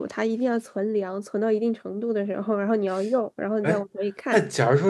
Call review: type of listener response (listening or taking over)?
taking over